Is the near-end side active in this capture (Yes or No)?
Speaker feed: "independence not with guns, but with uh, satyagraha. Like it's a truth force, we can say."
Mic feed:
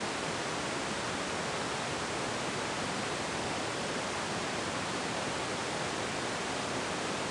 No